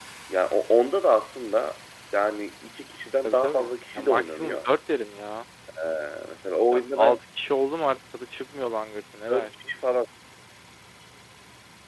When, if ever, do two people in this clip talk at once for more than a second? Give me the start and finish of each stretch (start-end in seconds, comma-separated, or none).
3.2-4.7